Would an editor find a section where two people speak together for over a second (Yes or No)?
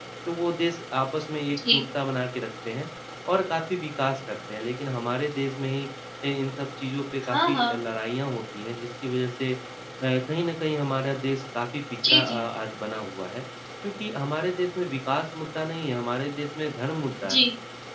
No